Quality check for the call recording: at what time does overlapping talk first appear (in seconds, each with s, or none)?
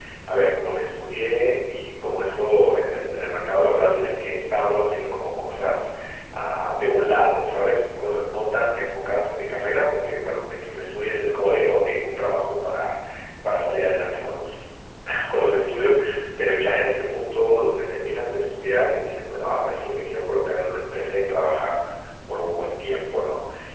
none